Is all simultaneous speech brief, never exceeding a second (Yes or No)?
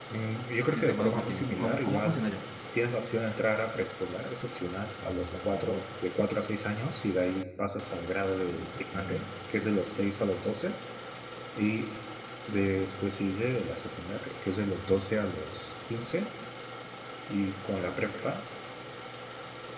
No